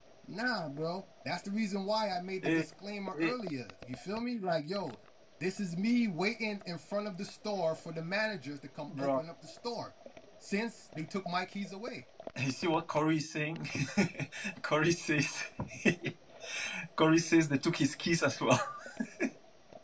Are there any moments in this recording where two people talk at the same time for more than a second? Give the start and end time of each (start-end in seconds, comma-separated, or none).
none